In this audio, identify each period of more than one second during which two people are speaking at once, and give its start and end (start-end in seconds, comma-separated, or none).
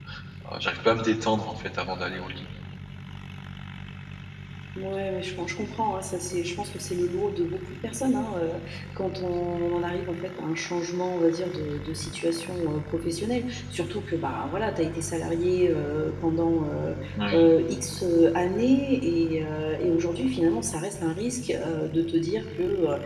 none